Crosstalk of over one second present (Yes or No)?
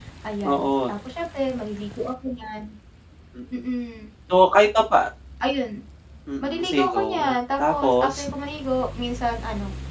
Yes